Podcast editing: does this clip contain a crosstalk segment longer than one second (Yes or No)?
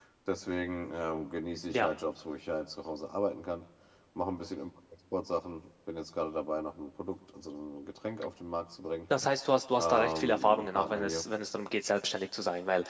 Yes